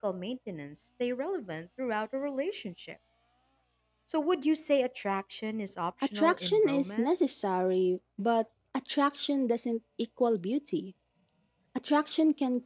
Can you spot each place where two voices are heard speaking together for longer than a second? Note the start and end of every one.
6.2-7.4

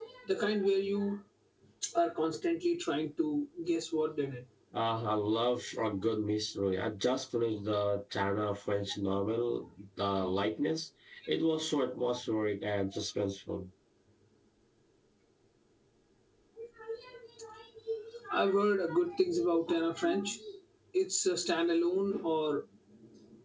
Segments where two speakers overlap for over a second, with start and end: none

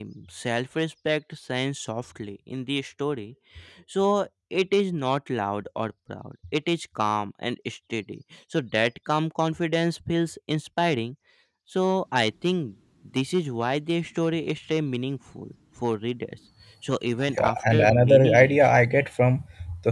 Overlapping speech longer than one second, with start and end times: 17.4-18.7

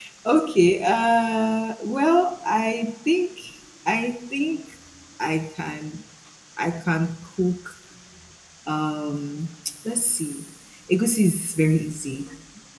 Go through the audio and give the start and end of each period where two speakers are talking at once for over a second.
none

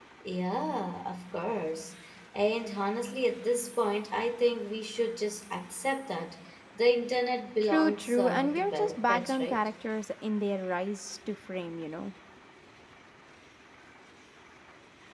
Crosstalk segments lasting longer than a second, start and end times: 7.6-9.7

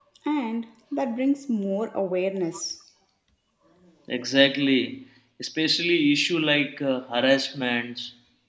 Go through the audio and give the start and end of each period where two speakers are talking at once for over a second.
none

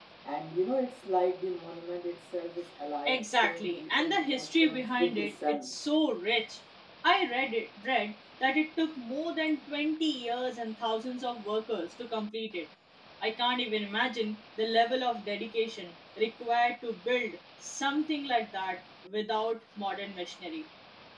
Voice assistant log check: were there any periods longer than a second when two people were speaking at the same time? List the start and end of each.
3.1-5.7

